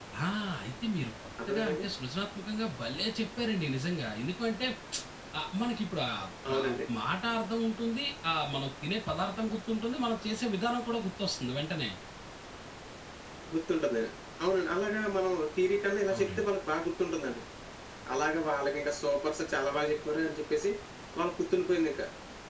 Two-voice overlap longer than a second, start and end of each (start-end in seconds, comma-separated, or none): none